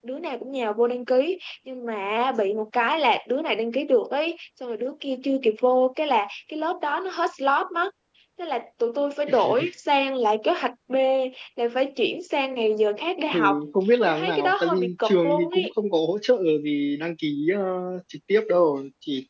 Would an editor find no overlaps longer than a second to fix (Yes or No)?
No